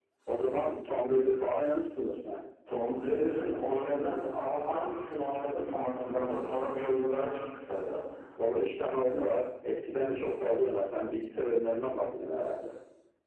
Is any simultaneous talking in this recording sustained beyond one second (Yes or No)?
No